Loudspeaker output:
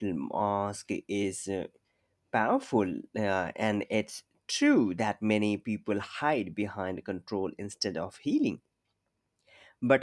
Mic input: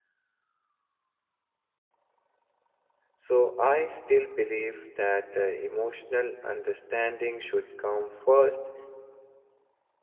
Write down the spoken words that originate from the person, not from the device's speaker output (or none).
So, I still believe that uh, emotional understanding should come first